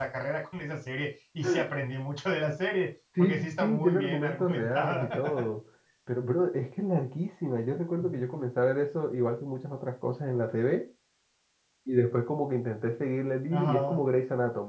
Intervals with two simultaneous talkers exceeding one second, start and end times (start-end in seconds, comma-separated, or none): 3.2-5.0